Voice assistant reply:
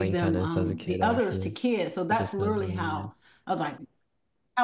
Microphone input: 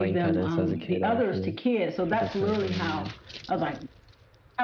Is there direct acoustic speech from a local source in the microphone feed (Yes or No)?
No